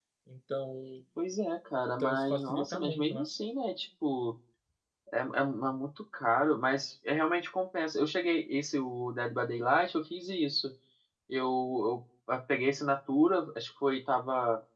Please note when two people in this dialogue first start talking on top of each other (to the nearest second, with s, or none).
2 s